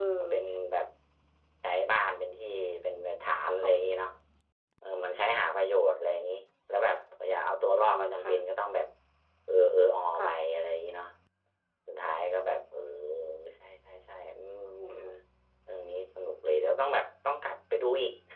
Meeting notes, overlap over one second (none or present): none